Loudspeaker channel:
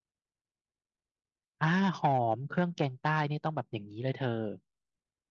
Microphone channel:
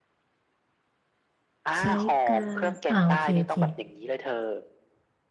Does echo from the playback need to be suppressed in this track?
Yes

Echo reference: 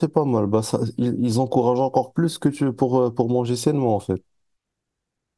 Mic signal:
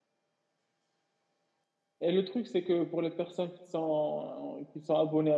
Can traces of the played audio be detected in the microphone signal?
No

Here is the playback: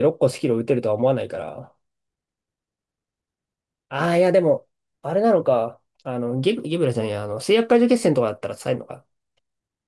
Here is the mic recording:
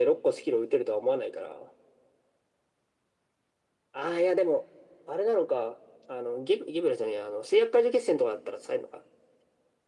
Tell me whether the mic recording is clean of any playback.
No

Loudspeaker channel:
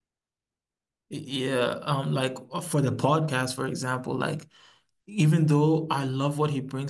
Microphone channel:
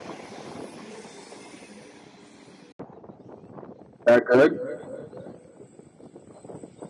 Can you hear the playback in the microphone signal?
No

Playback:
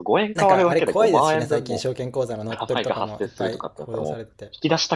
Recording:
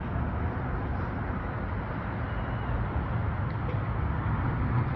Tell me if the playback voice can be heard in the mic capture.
No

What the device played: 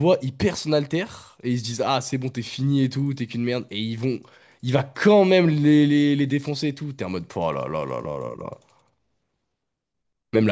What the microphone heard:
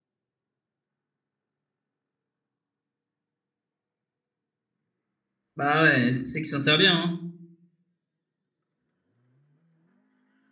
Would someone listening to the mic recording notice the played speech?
No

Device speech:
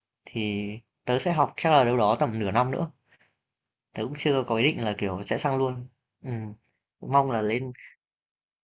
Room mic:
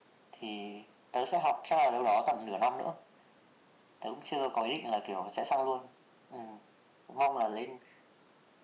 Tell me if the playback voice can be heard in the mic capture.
Yes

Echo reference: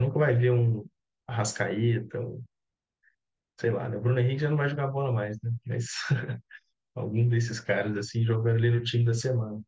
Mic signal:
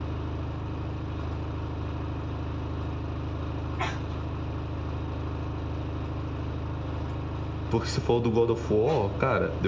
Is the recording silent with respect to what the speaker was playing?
Yes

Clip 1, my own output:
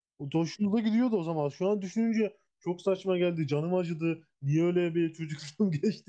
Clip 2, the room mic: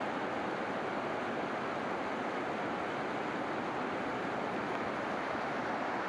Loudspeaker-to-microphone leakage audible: No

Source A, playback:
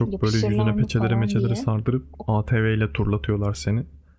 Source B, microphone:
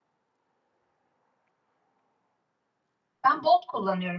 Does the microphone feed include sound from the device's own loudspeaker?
No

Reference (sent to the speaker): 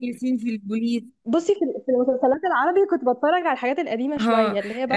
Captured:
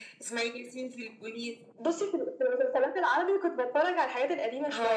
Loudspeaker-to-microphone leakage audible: Yes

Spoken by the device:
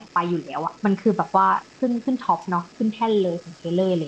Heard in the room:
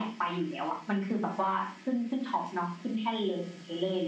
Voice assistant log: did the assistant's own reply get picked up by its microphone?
Yes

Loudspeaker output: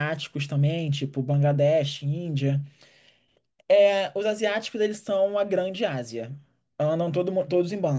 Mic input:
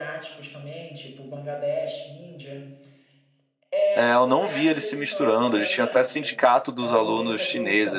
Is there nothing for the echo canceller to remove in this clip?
No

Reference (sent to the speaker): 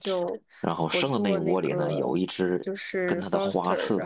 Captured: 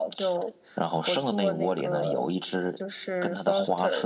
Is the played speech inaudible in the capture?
No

